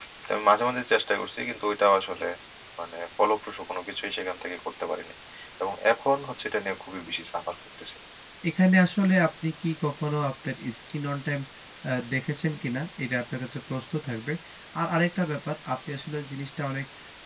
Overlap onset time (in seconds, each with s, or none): none